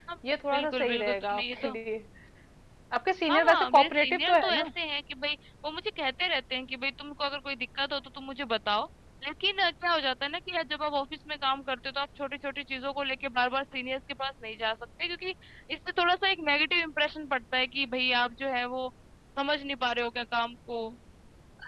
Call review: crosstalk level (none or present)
present